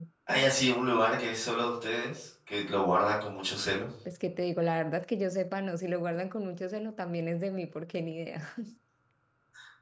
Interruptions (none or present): none